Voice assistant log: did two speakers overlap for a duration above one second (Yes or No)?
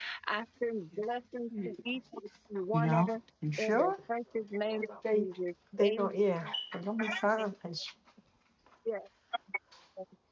No